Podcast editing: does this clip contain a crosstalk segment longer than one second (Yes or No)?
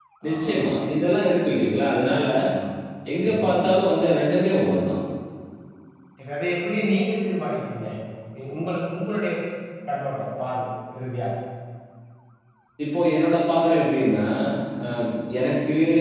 No